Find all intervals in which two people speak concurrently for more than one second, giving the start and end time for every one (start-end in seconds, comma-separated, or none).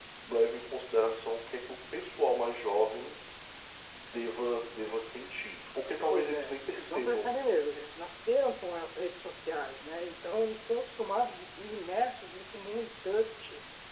6.1-7.3